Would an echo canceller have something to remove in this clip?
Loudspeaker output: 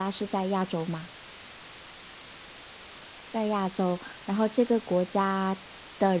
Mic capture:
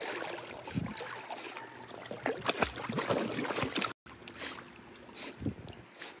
No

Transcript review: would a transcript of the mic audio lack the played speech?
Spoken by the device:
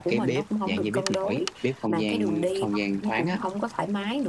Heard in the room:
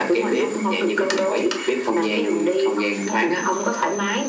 No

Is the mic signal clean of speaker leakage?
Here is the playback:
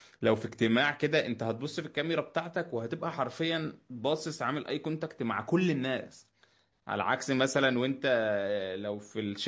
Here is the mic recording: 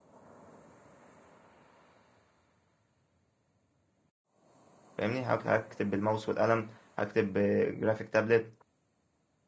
Yes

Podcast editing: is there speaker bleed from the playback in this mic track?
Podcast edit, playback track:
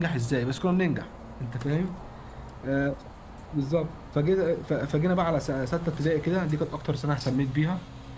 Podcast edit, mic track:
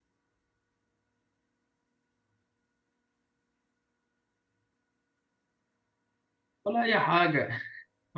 No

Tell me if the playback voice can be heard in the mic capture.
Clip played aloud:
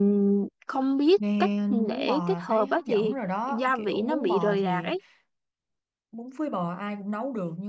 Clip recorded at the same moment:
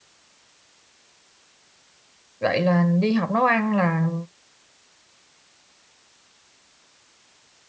No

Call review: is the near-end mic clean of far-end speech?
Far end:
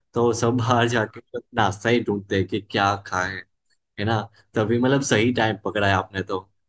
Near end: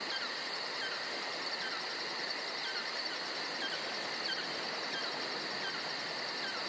Yes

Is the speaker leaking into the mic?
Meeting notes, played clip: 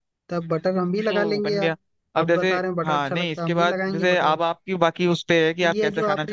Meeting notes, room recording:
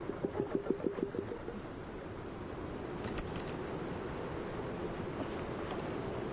No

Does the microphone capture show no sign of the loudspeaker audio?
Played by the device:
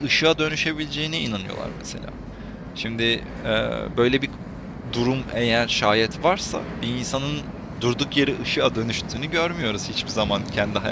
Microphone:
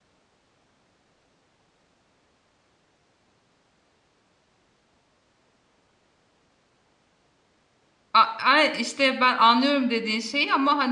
Yes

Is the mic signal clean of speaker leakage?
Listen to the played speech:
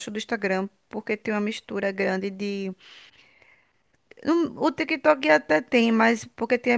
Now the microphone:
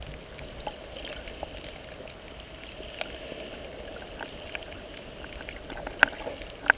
Yes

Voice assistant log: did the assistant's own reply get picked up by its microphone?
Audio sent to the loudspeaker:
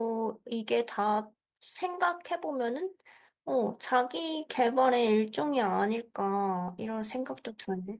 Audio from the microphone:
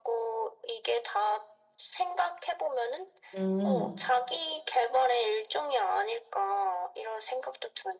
Yes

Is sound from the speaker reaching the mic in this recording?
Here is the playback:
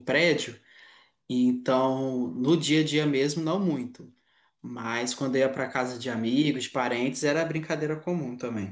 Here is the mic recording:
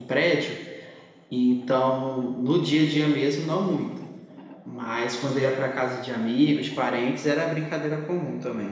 Yes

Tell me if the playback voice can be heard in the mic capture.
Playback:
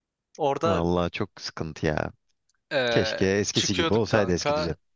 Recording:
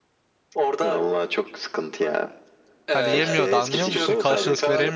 Yes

